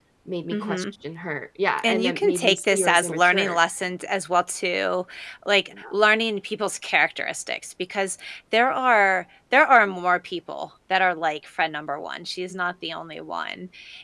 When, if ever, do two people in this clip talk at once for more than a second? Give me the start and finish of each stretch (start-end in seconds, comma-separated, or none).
1.8-3.6